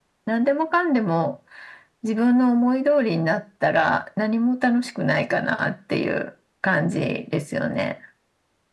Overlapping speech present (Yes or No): No